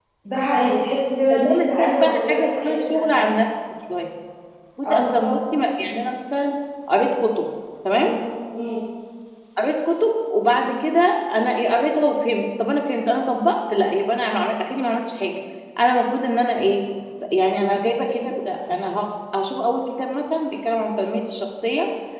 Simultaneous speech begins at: 1.3 s

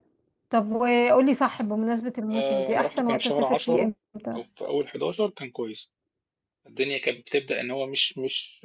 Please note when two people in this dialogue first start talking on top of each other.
2.3 s

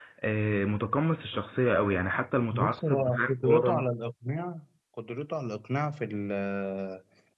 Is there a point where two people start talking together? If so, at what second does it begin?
2.5 s

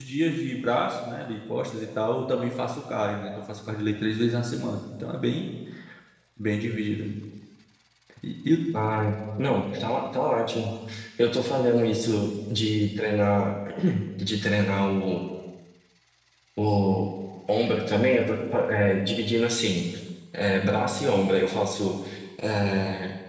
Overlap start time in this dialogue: none

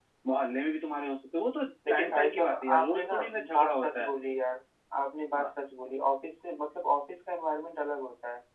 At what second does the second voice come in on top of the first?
1.9 s

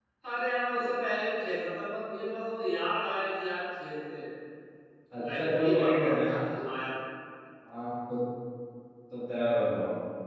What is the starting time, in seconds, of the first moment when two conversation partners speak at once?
5.2 s

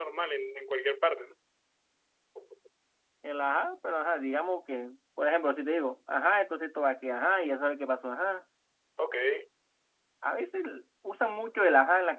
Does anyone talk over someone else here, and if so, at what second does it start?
none

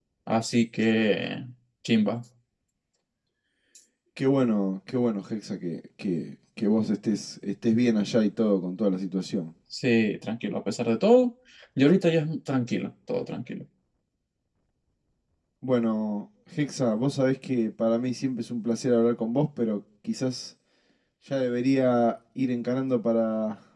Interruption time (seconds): none

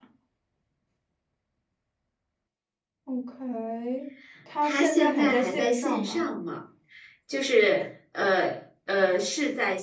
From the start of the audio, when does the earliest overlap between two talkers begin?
4.6 s

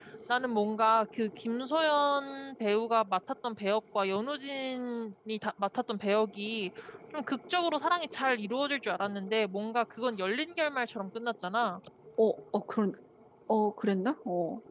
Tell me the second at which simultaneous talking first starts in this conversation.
none

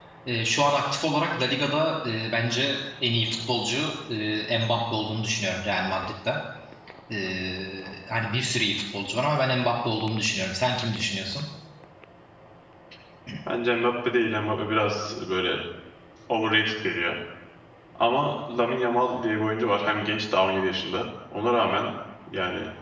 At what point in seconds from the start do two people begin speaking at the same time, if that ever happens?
none

